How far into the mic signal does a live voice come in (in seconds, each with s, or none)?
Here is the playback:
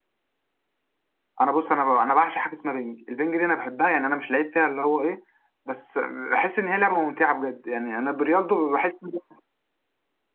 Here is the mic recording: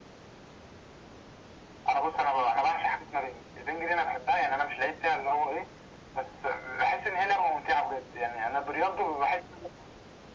none